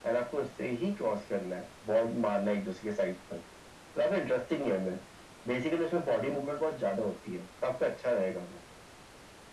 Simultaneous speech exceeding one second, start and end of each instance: none

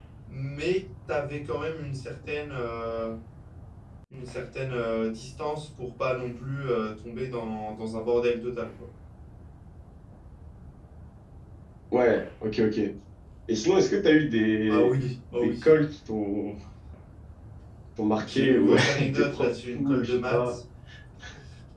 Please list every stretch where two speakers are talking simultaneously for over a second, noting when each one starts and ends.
18.3-20.6

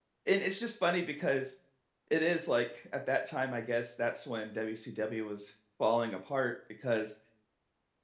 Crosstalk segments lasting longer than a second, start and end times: none

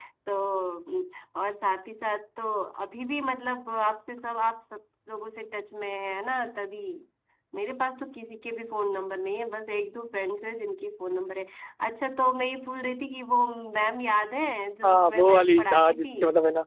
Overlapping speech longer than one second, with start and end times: 14.8-16.1

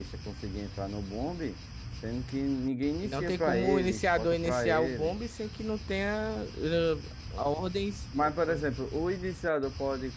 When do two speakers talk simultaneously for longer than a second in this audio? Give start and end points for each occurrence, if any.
3.0-5.2

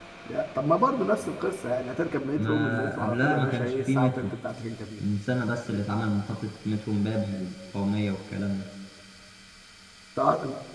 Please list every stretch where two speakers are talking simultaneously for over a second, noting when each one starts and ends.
2.4-4.3

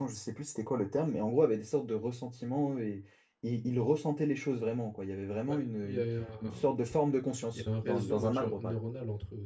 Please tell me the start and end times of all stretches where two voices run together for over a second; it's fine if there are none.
7.5-8.7

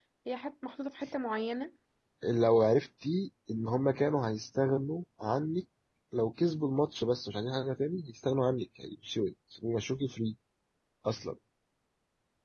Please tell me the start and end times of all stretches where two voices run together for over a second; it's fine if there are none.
none

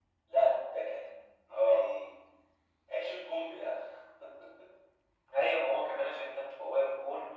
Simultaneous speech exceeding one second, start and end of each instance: none

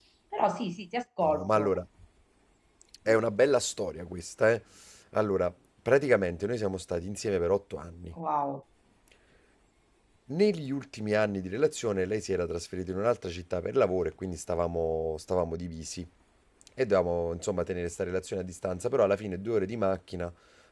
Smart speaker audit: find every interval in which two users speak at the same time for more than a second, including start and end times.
none

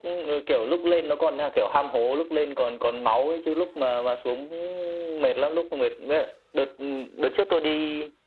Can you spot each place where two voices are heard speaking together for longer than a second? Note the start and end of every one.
none

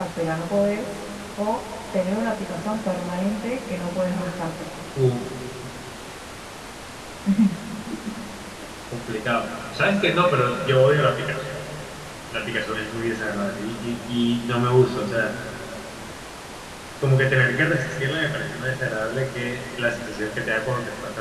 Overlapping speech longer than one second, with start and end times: none

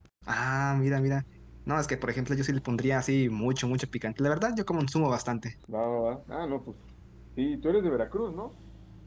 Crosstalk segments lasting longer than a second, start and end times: none

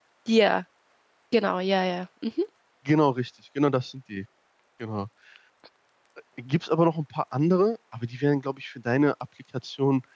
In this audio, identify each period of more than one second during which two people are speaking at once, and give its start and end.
none

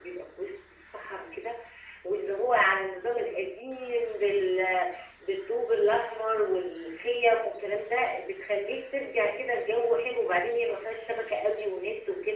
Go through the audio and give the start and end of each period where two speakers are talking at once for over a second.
none

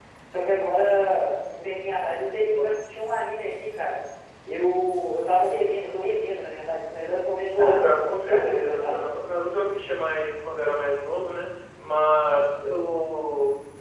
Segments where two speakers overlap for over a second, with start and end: 7.5-9.0

